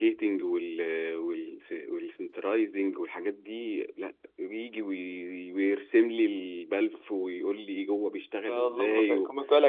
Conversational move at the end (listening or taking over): taking over